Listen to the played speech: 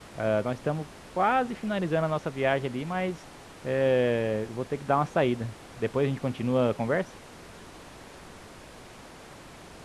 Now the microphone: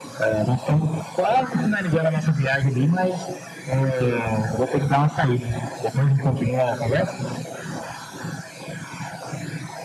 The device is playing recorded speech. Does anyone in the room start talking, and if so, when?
none

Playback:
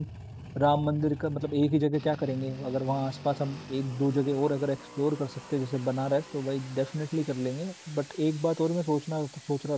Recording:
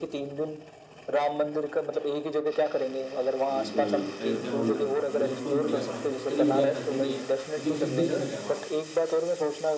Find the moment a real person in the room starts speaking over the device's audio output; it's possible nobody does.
3.5 s

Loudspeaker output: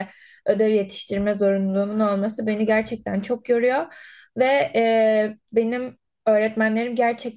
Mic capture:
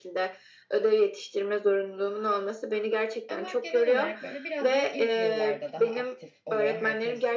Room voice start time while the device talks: 3.3 s

